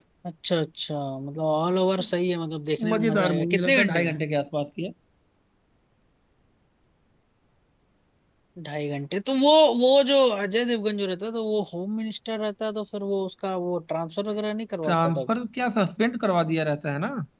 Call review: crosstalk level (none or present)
present